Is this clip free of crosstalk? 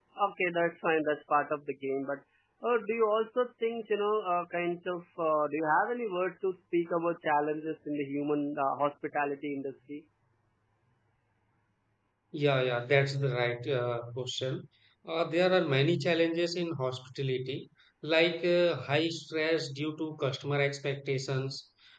Yes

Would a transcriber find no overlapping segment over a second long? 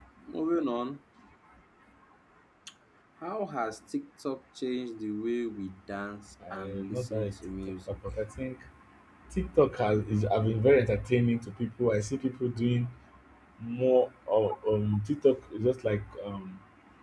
No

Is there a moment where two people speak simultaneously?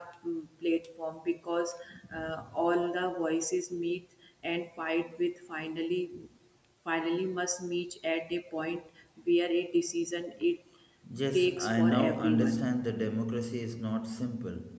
Yes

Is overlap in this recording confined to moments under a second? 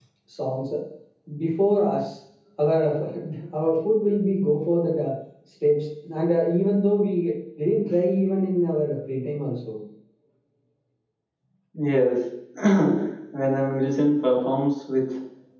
Yes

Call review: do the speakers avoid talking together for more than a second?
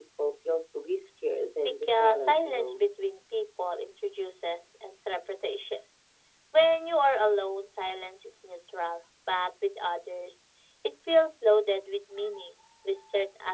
No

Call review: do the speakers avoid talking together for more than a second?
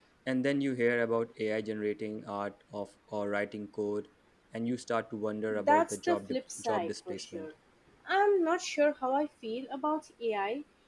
No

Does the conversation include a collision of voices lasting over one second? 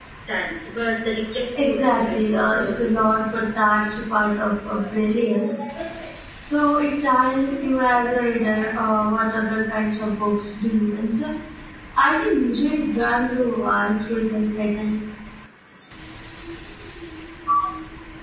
Yes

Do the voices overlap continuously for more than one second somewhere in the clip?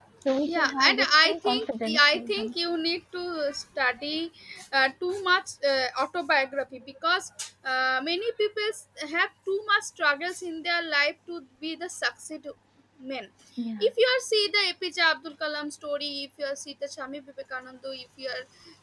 Yes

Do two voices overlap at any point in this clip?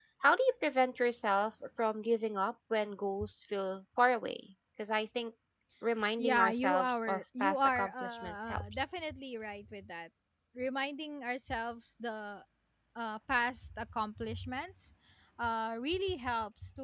Yes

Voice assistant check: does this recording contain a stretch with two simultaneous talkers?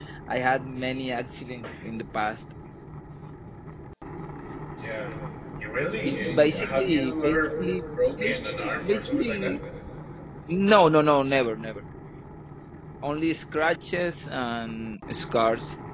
Yes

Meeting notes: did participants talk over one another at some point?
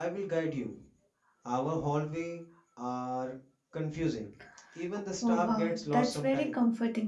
Yes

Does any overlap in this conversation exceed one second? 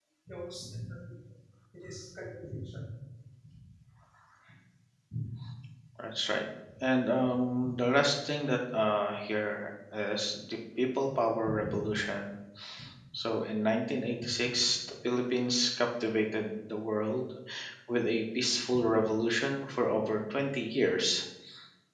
No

